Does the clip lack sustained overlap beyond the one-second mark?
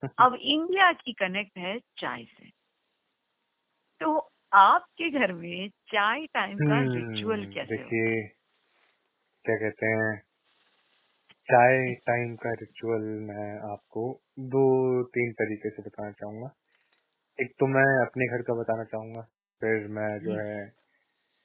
No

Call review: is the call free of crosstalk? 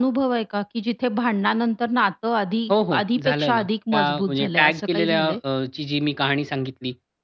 No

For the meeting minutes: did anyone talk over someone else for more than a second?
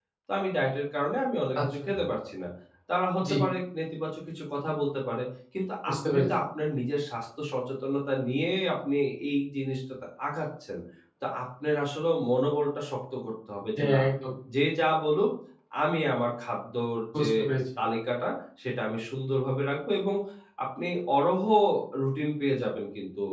No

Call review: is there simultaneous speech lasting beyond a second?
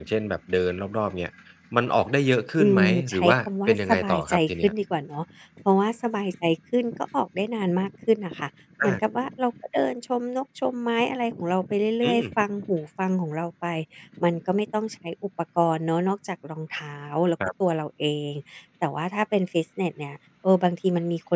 Yes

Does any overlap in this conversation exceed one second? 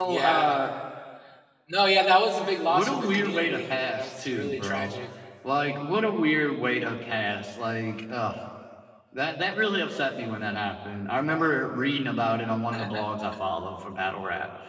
Yes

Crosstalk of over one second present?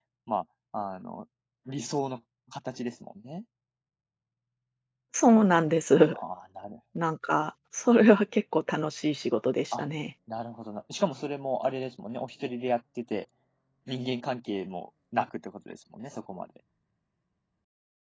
No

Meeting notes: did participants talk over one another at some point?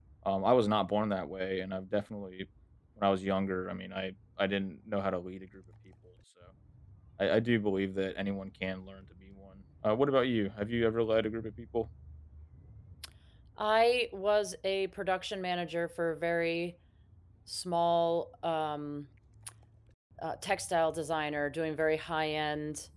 No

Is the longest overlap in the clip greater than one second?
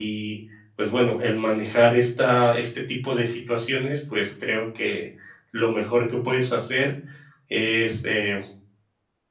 No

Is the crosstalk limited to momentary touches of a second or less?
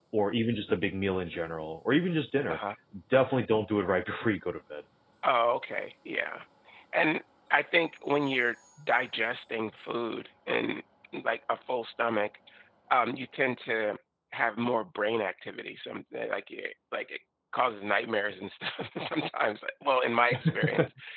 Yes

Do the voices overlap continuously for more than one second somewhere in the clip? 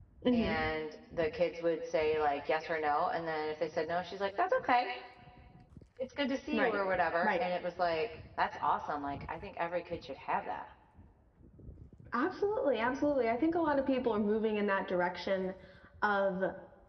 No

